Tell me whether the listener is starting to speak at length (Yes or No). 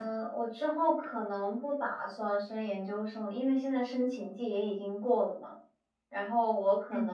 No